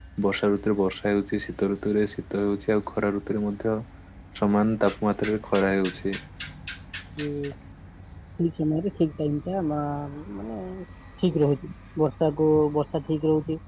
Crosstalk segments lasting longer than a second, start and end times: none

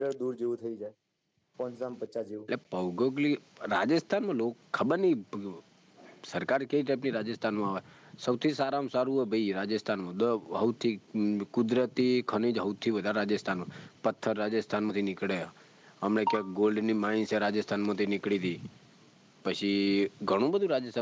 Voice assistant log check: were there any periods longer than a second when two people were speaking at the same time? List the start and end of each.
none

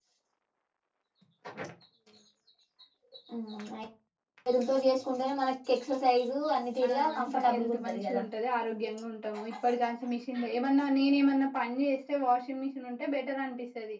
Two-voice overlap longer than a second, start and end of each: 6.9-8.2

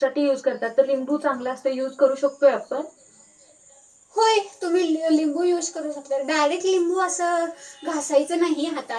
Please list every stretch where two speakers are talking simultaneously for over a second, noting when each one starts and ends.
none

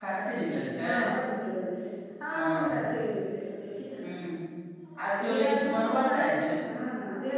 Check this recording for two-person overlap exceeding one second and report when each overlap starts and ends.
5.2-6.5

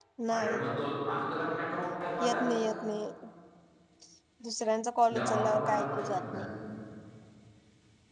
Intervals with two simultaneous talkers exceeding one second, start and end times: 5.2-6.5

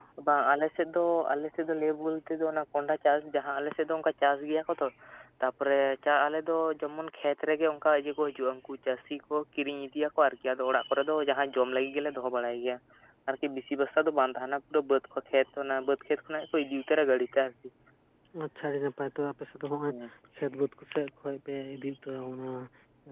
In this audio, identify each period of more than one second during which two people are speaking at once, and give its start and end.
none

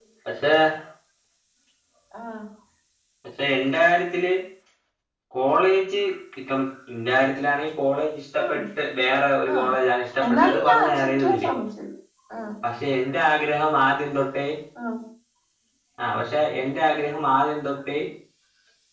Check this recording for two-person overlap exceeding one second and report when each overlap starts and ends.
10.3-11.5

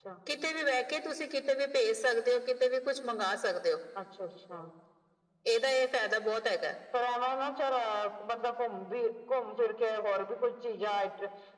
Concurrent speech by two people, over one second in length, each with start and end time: none

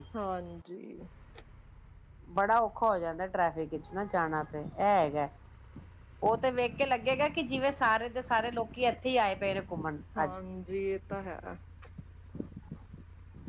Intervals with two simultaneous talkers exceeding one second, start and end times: none

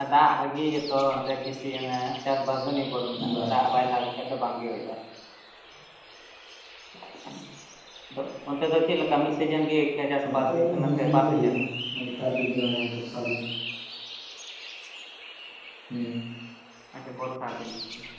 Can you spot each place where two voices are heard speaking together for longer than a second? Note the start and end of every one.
10.2-11.5

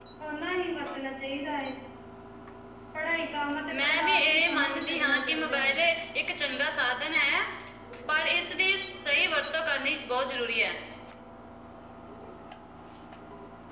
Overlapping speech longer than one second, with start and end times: 3.7-5.8

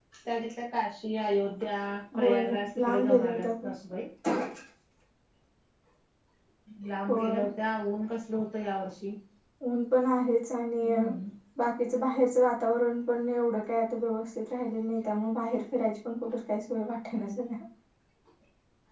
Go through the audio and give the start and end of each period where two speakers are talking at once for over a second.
2.2-3.5

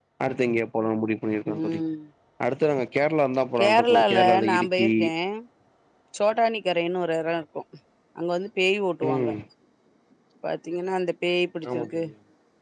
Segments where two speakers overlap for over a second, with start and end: 3.6-4.9

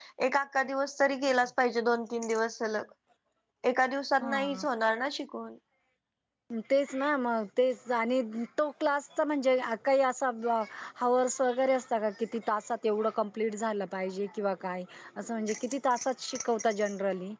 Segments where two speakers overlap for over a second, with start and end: none

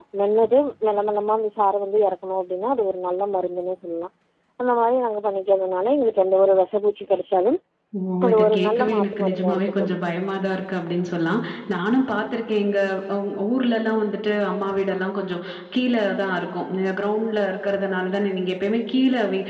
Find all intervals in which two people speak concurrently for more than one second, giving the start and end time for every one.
8.3-10.0

